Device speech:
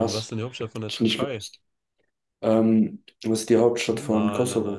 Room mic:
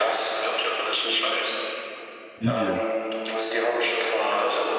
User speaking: Yes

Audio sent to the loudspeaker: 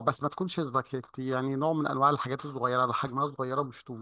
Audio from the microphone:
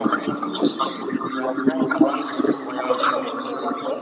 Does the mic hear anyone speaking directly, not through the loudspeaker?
Yes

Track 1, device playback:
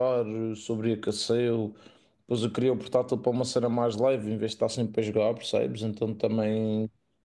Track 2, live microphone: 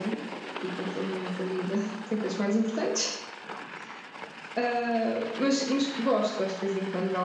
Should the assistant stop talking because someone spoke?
Yes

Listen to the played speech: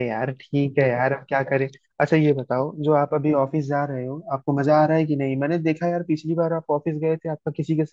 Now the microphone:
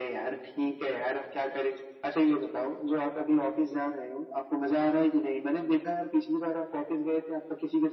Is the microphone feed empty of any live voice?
Yes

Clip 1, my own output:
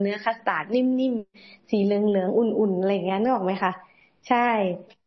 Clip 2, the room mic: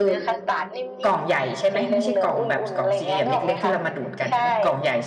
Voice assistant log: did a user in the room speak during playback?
Yes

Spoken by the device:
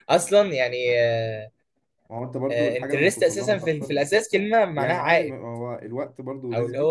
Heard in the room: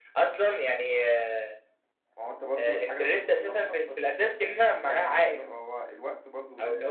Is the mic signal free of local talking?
Yes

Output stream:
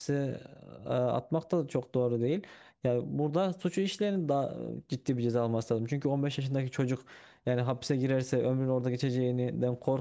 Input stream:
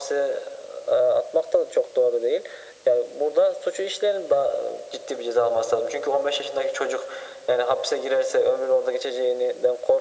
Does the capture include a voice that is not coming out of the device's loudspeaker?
No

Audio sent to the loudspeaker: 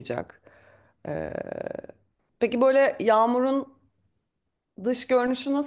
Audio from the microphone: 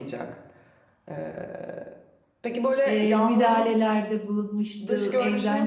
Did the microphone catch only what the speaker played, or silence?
No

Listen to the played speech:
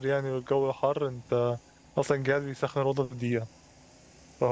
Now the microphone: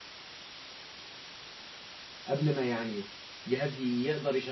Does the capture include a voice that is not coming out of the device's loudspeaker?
Yes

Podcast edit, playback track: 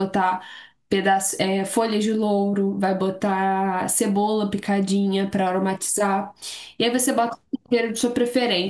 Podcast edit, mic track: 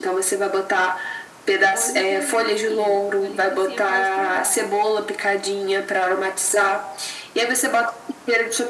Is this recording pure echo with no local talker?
No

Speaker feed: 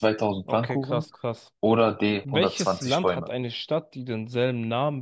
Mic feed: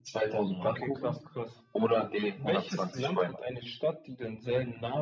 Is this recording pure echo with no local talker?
No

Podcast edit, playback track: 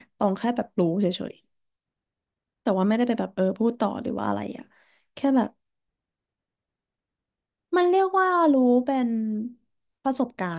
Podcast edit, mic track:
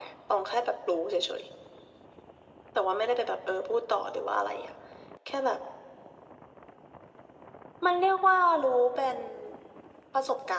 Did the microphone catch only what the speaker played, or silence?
Yes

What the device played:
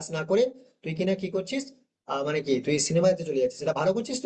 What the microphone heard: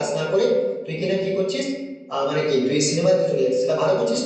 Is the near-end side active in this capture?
No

